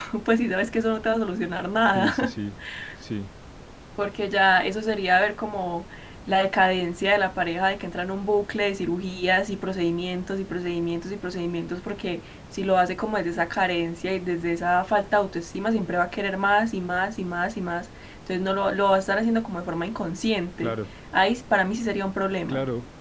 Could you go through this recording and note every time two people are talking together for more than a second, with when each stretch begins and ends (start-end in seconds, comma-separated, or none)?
none